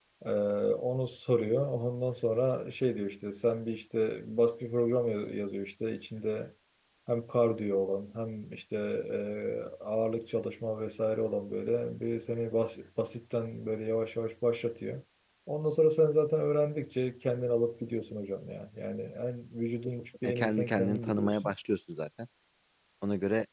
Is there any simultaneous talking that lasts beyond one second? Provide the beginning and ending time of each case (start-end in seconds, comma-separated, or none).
20.2-21.5